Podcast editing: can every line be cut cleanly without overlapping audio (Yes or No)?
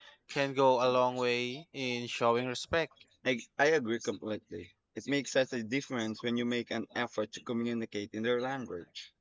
Yes